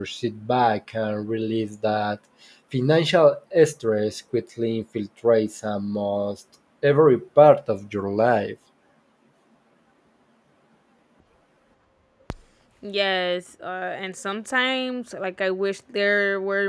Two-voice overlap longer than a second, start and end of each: none

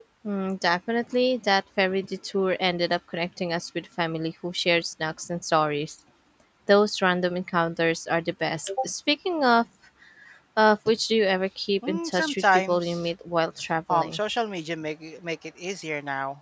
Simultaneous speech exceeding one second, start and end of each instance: 11.9-13.1

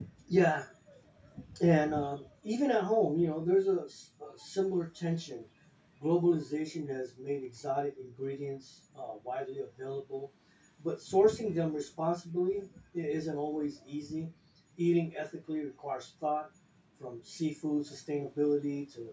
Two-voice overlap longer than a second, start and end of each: none

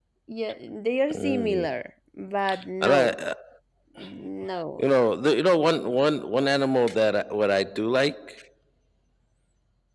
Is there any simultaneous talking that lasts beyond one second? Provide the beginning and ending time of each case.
none

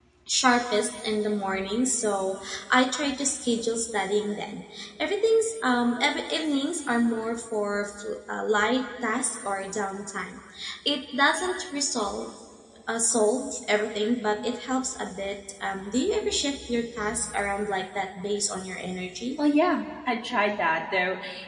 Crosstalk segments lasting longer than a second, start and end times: none

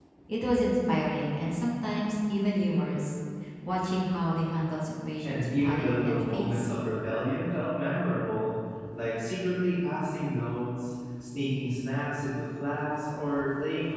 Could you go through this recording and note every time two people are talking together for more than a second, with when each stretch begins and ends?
5.2-6.7

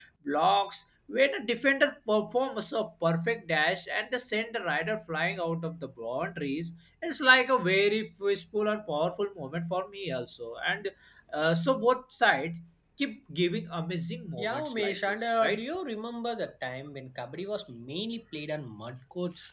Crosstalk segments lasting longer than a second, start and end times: 14.4-15.6

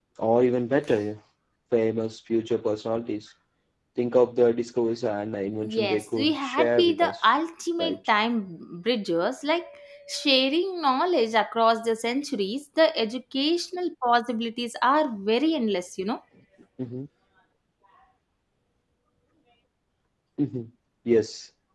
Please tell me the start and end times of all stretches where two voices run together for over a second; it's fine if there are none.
5.6-7.2

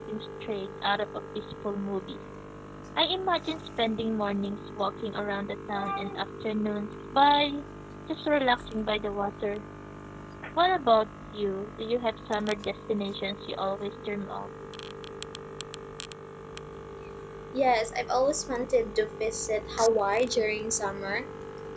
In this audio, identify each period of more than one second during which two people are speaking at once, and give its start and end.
none

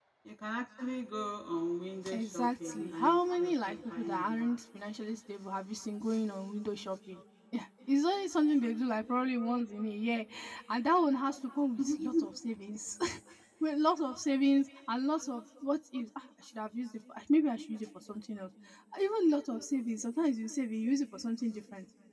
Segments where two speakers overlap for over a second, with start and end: 2.1-4.5

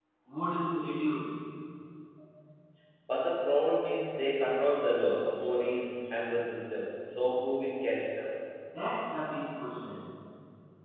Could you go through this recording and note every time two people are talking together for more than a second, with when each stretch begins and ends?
none

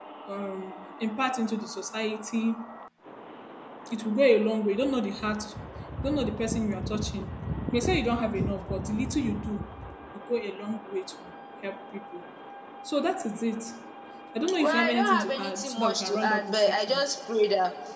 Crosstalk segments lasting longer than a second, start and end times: 14.6-17.0

